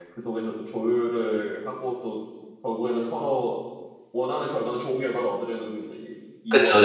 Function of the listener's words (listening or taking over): taking over